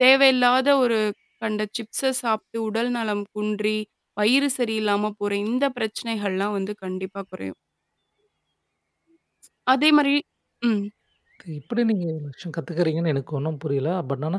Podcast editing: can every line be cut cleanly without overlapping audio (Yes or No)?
Yes